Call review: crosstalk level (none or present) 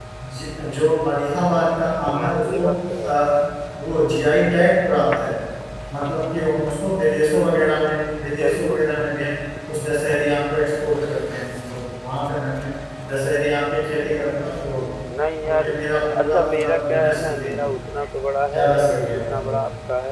present